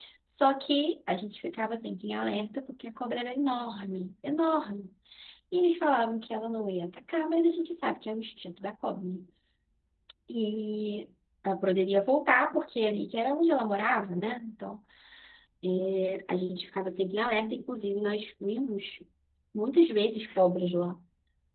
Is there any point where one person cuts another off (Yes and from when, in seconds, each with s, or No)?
No